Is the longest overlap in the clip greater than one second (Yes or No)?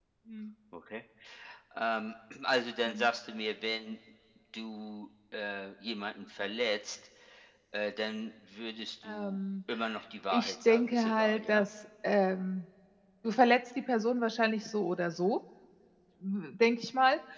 Yes